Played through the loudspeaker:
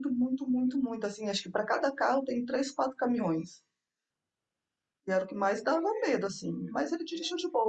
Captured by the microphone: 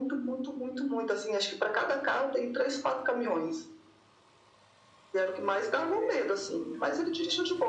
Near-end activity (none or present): none